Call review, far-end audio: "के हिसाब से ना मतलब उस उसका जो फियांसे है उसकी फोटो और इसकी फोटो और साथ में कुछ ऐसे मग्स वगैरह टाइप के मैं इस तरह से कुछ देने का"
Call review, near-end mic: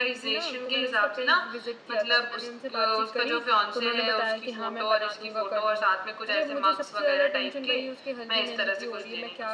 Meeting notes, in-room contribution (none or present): present